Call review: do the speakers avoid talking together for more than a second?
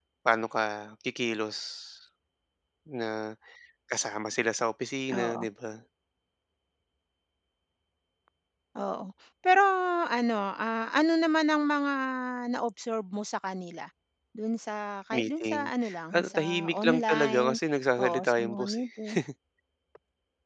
No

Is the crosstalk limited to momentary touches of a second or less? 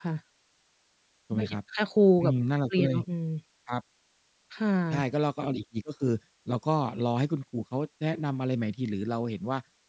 Yes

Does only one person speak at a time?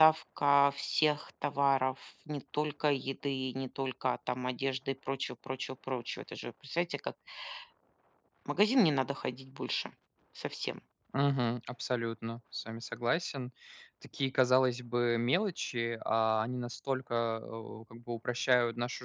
Yes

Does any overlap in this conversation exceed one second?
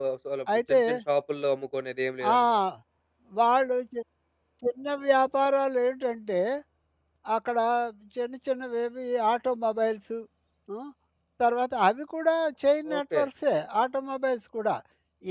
No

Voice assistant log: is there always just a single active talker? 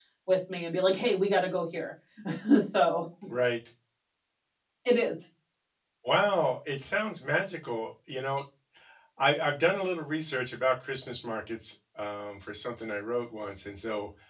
Yes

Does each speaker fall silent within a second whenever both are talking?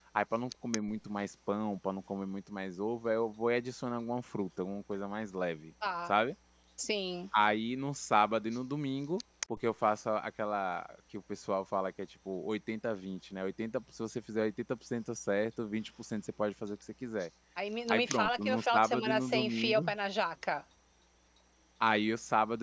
No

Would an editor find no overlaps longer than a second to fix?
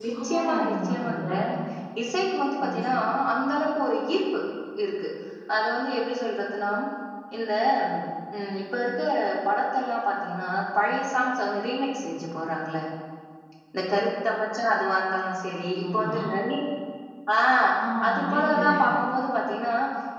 No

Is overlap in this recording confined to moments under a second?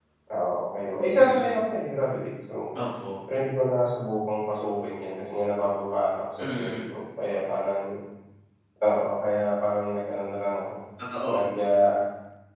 Yes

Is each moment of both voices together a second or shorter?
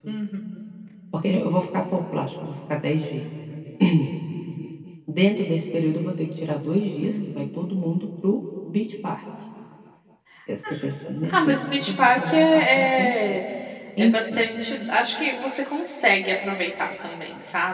No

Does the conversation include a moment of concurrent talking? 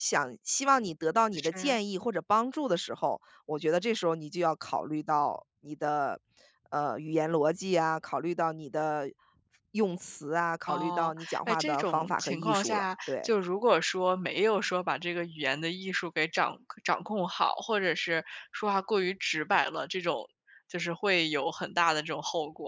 Yes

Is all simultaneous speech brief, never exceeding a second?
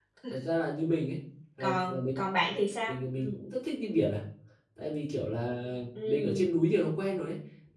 Yes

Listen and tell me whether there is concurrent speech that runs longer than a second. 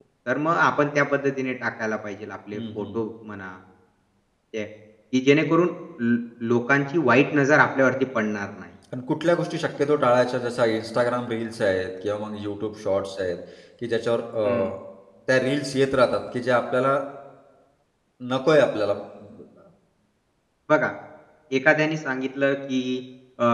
No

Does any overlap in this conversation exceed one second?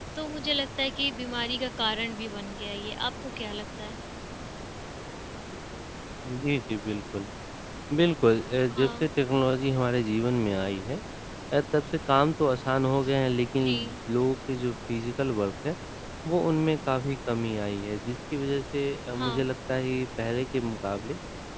No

